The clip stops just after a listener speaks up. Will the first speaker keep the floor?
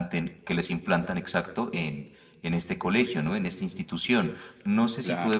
Yes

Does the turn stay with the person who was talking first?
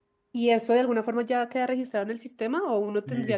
No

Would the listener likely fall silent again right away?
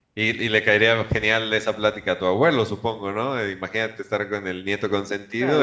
No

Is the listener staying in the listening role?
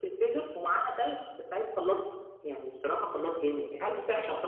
Yes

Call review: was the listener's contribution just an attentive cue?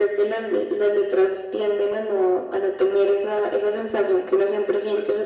Yes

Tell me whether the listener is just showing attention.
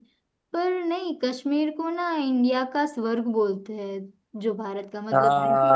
Yes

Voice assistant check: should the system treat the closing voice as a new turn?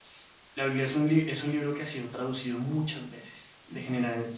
No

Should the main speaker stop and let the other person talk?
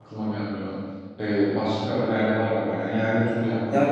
Yes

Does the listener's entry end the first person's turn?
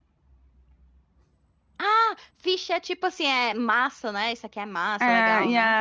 Yes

